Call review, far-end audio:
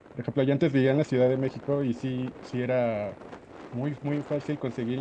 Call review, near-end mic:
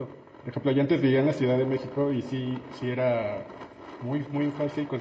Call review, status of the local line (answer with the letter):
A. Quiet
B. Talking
A